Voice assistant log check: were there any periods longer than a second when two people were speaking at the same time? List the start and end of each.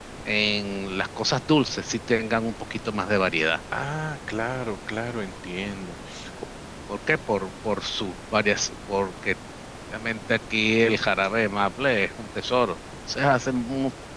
none

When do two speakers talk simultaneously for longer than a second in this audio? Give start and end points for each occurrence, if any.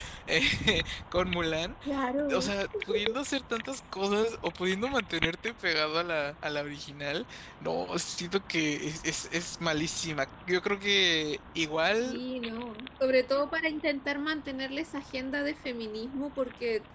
none

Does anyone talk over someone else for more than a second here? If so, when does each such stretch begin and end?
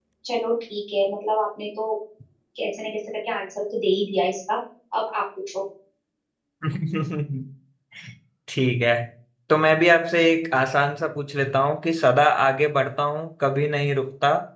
none

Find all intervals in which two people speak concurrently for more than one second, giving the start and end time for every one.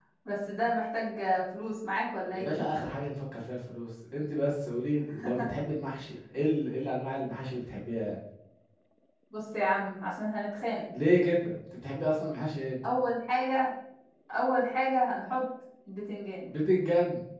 none

